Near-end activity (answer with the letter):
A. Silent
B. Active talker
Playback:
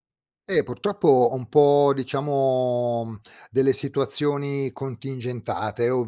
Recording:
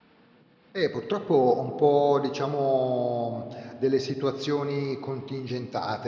A